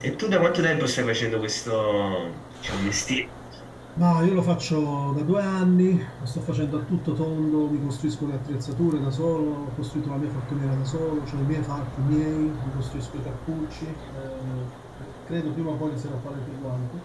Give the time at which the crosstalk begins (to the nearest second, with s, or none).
none